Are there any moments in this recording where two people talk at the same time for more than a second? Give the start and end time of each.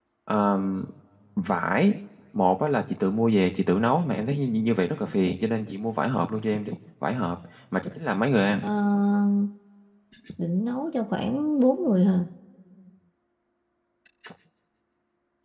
none

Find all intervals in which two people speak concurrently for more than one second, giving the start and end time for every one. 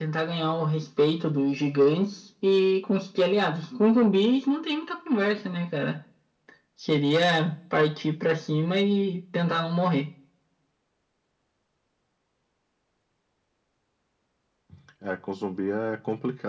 none

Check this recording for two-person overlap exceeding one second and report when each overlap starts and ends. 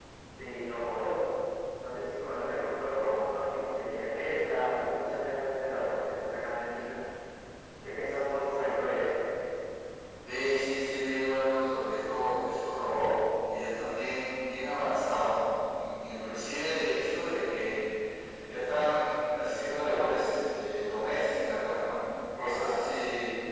none

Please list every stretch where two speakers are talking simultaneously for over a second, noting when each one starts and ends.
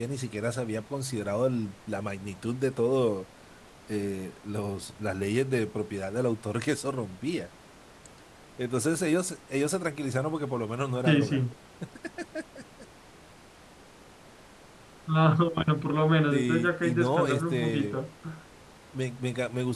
16.3-18.0

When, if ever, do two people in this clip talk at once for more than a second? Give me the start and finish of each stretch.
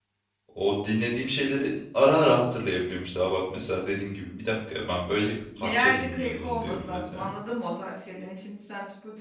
5.6-7.3

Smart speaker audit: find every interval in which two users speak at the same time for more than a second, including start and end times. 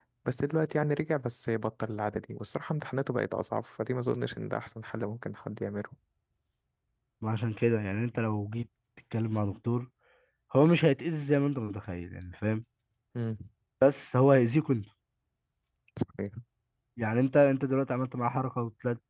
none

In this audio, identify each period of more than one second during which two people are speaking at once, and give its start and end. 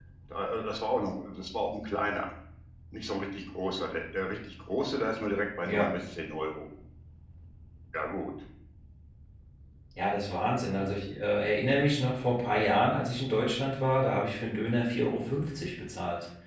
none

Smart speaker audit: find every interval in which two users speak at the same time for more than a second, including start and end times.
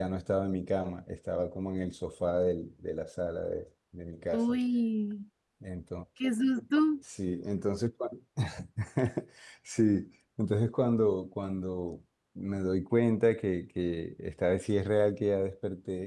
none

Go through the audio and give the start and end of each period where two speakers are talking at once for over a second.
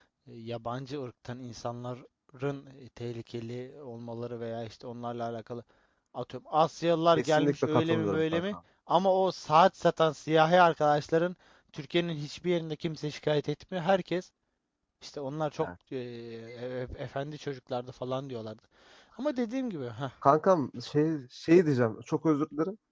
7.2-8.4

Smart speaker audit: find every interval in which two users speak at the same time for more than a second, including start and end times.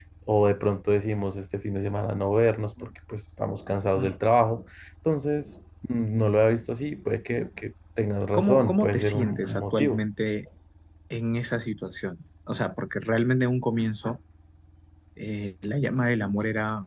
8.3-10.0

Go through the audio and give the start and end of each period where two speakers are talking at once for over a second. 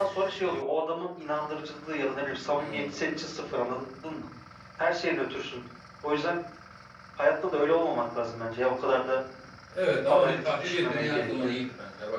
10.1-11.5

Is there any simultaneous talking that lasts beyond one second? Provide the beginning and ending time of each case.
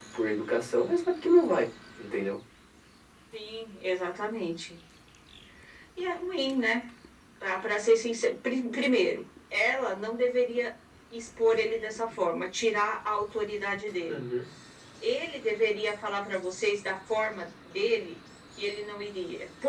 none

